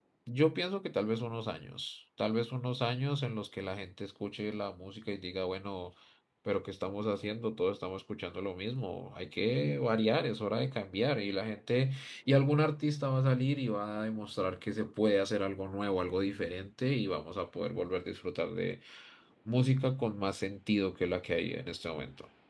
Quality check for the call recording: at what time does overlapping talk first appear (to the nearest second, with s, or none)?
none